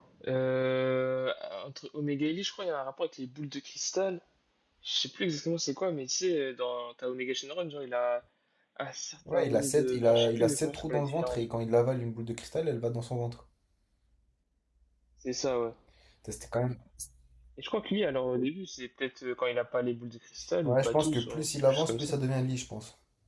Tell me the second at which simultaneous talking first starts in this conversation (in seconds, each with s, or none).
9.3 s